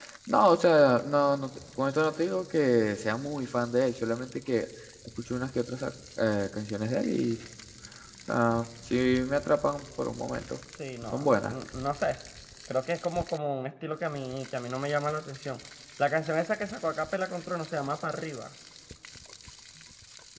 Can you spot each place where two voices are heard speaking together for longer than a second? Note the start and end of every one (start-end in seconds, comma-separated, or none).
none